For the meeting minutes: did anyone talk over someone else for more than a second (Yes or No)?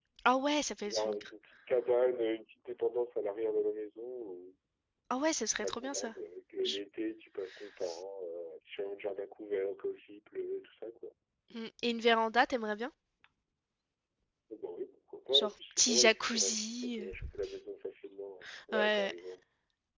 Yes